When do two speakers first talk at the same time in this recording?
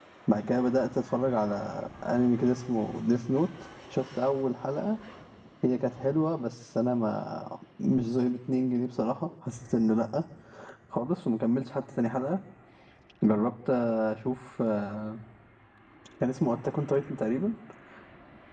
none

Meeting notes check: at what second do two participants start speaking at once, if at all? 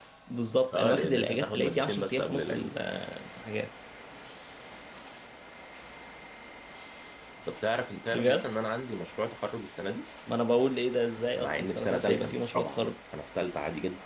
0.7 s

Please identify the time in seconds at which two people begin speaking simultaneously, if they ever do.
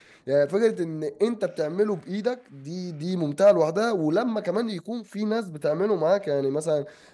none

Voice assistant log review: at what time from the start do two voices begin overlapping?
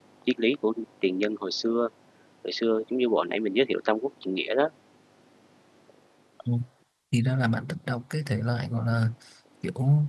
none

